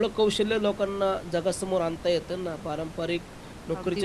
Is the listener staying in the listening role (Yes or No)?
Yes